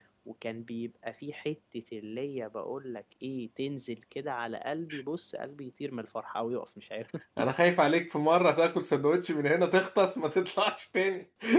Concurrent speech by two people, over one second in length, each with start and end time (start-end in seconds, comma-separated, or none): none